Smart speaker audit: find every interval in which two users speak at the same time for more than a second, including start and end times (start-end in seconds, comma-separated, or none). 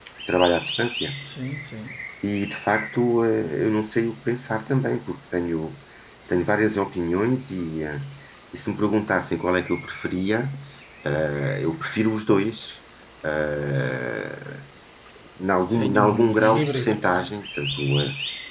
15.6-17.3